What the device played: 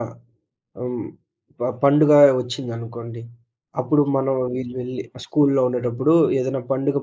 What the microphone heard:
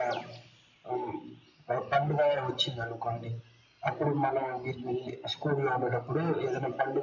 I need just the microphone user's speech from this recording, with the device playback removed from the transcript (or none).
none